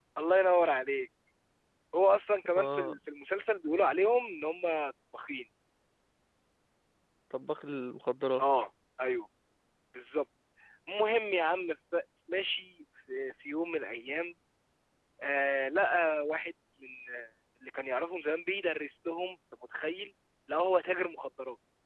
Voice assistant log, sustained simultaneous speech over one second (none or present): none